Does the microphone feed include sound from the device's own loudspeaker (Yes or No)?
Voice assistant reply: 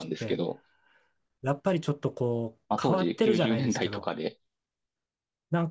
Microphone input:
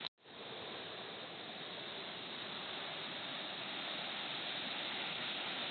No